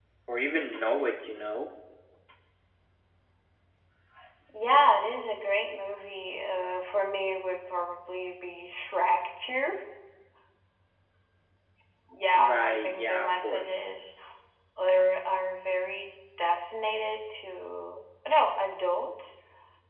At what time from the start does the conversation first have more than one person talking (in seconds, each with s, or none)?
12.4 s